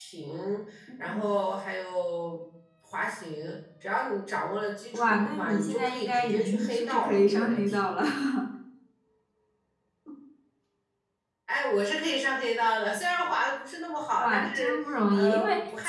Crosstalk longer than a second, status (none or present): present